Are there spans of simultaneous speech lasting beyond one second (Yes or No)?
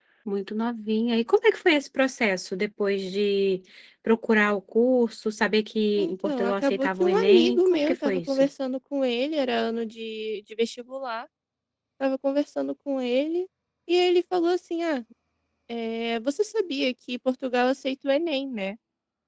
Yes